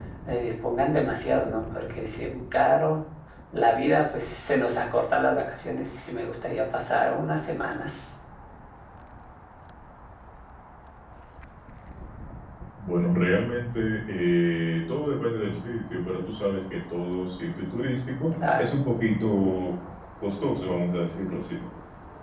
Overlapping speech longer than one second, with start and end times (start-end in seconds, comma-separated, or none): none